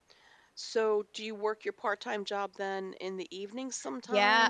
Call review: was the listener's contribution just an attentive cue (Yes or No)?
No